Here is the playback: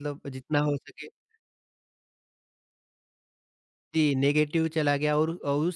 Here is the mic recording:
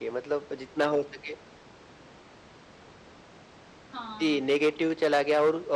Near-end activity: present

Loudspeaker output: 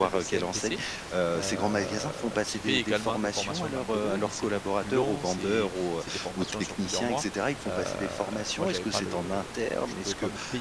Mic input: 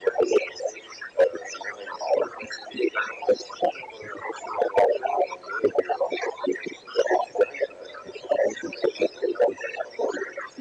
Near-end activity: none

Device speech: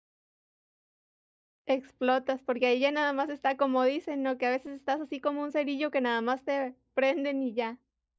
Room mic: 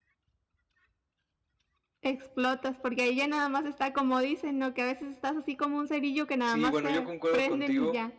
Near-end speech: present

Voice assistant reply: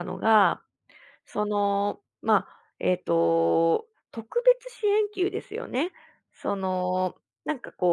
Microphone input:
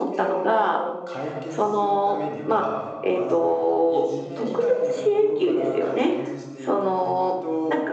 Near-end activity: present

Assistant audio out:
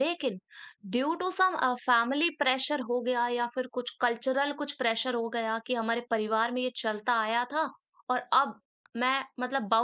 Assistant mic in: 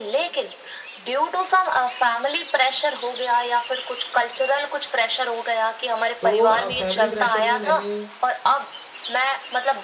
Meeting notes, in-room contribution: present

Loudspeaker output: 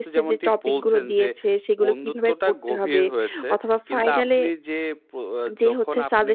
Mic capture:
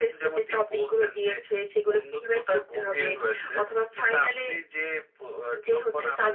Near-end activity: none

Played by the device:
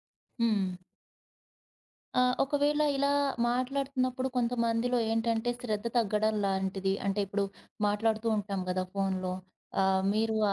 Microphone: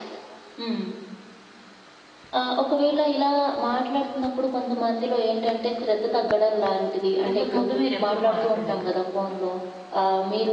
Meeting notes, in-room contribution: present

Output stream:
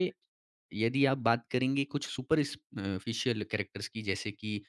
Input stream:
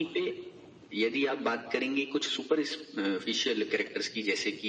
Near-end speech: none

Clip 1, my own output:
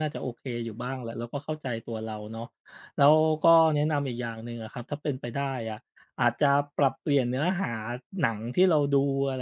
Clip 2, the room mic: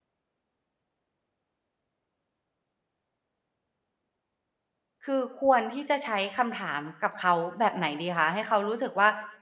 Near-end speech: present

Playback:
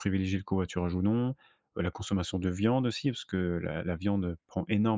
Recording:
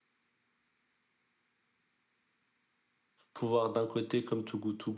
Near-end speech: present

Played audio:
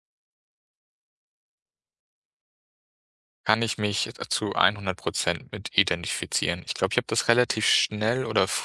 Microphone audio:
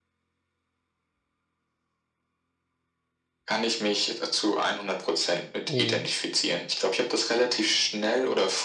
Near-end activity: present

